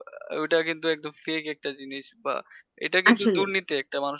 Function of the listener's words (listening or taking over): listening